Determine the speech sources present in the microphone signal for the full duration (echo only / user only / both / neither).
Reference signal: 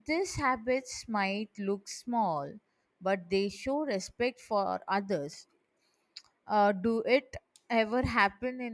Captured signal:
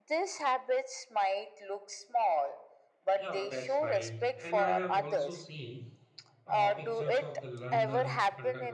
both